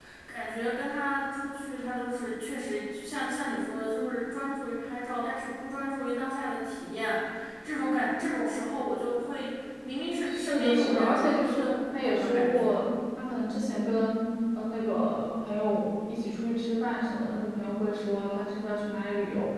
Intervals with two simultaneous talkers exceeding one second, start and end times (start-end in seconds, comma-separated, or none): 10.3-12.8